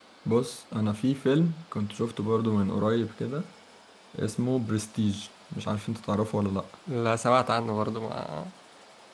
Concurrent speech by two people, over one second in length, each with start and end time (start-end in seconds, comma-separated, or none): none